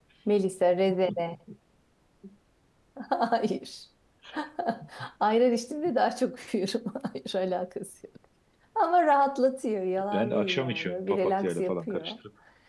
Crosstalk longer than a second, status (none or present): present